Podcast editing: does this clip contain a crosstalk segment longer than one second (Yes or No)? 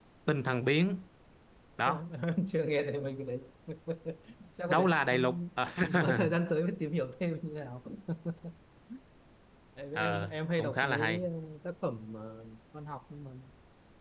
Yes